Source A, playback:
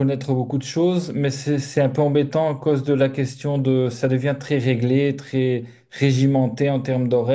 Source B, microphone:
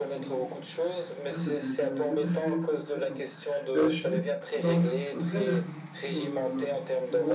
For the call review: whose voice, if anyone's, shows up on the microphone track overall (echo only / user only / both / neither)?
both